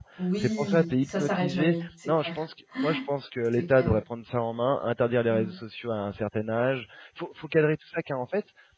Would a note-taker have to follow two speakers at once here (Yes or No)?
Yes